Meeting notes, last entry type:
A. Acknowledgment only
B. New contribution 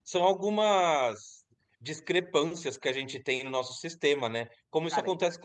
A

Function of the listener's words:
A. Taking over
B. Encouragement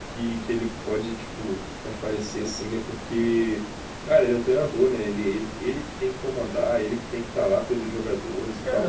A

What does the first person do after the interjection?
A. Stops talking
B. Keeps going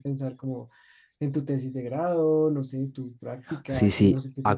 A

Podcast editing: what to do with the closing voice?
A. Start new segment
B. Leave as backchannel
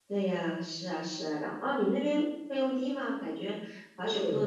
A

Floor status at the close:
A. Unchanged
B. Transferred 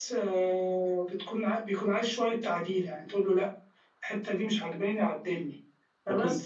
A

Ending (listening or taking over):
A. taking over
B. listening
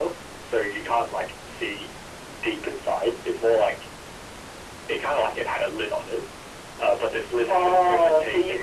A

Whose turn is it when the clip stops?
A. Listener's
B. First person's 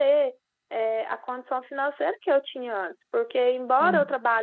B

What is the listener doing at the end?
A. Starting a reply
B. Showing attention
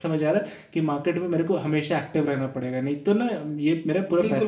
A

